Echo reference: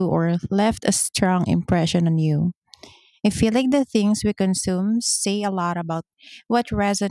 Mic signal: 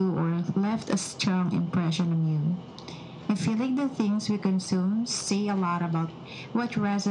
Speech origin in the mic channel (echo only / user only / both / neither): echo only